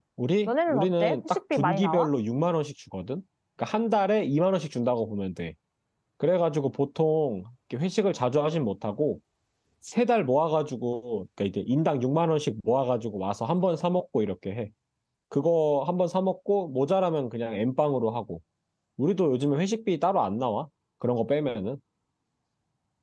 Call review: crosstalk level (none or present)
present